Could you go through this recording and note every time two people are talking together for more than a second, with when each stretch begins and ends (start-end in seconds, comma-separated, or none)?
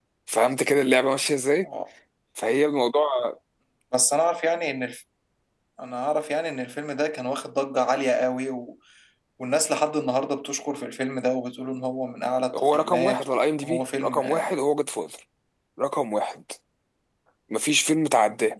12.6-14.2